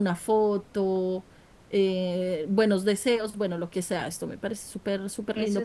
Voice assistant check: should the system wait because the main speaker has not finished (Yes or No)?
No